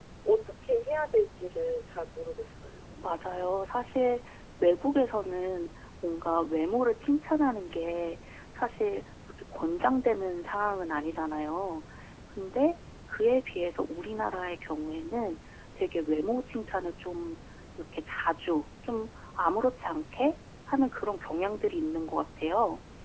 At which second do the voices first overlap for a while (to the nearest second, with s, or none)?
none